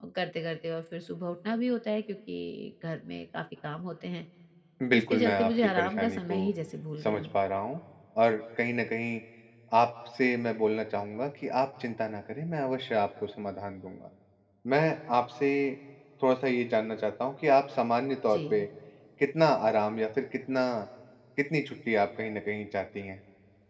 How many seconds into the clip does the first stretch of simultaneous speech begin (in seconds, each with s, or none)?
5.0 s